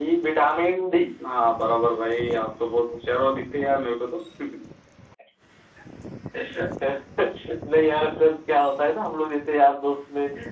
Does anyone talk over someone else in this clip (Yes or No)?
No